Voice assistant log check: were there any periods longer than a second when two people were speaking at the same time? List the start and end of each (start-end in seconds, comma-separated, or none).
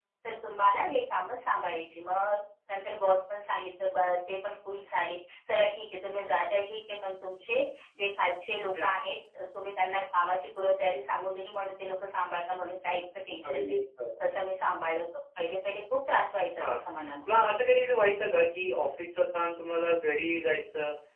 none